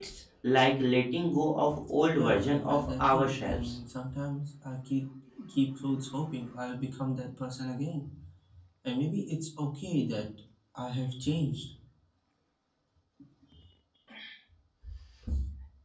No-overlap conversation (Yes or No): No